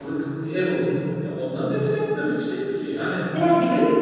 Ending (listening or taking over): taking over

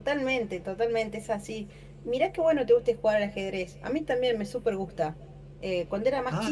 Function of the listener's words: listening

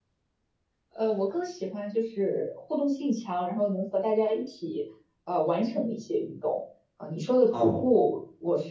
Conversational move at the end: listening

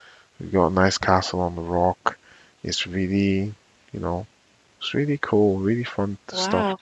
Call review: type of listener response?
taking over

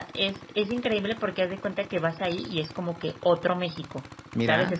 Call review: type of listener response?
listening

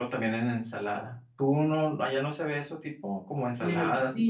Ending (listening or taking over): taking over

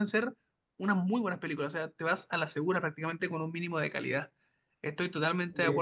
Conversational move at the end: listening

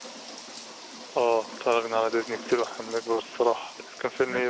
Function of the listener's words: taking over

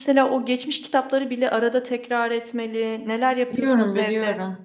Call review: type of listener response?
taking over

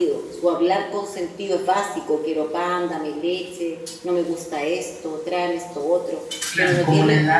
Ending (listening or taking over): taking over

